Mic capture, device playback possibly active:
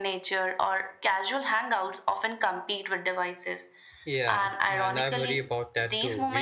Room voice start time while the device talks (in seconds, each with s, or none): 4.0 s